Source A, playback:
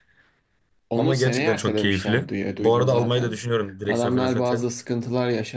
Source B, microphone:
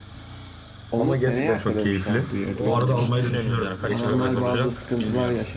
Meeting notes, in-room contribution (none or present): present